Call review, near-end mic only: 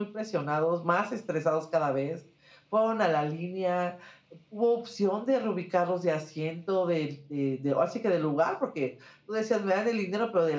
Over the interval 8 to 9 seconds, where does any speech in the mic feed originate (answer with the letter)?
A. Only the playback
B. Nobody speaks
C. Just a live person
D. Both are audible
A